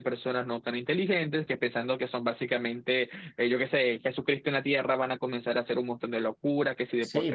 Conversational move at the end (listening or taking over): taking over